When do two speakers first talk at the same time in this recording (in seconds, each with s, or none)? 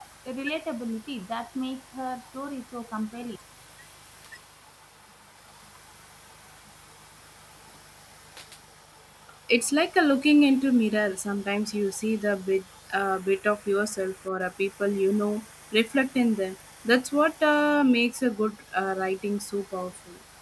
none